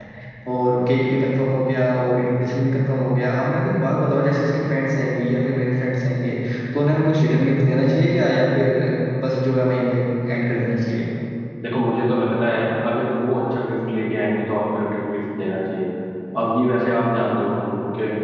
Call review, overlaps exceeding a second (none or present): none